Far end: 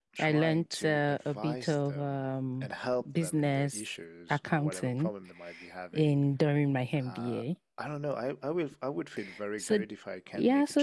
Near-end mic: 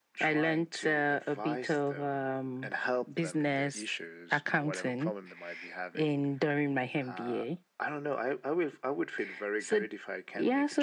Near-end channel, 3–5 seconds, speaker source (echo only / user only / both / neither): echo only